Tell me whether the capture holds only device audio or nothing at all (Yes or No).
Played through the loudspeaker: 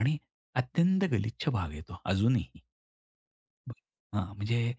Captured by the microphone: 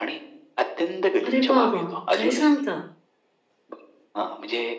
No